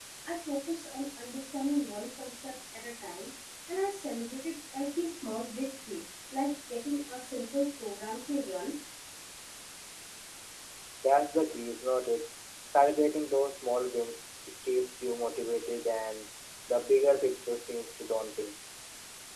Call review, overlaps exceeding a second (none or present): none